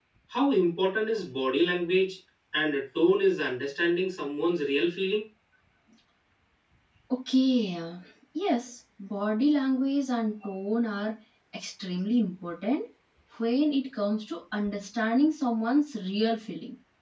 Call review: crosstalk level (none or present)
none